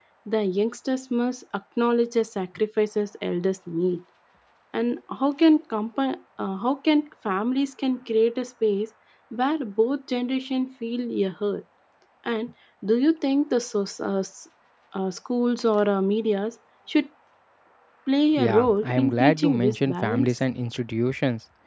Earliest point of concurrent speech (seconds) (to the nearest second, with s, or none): 18 s